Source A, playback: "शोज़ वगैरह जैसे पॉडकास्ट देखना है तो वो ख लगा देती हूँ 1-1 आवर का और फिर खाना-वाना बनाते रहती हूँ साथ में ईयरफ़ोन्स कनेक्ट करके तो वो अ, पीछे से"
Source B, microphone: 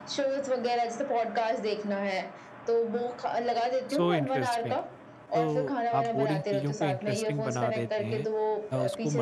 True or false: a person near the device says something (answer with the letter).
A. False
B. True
B